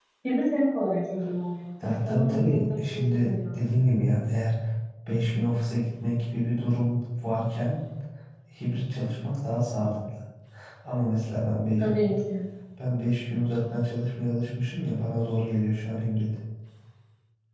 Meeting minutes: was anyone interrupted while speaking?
Yes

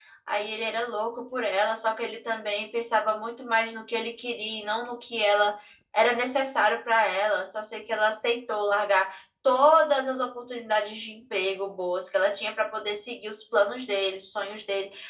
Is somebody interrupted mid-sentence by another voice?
No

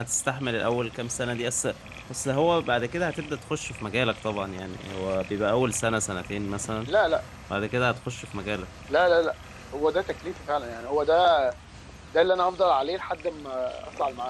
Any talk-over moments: No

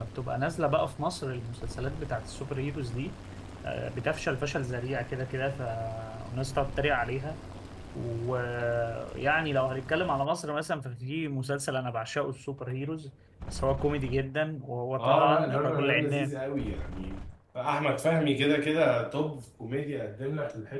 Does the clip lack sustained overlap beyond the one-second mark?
No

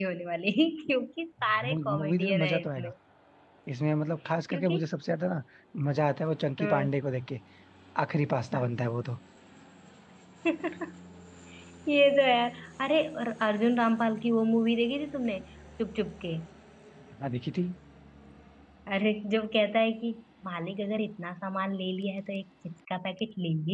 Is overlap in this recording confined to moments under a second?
No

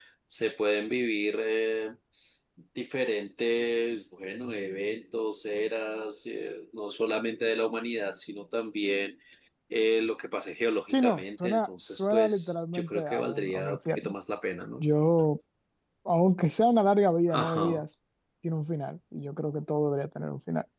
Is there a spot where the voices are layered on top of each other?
Yes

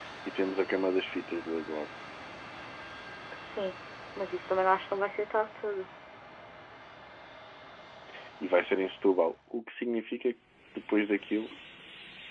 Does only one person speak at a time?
Yes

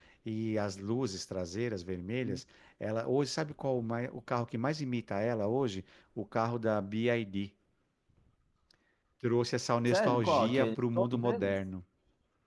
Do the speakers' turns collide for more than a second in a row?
Yes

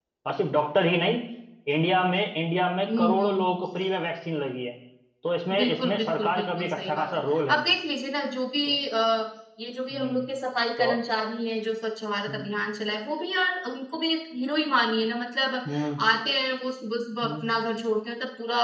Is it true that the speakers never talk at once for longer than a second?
No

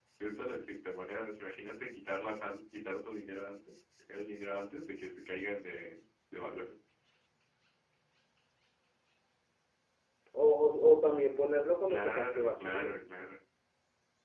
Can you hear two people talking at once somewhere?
Yes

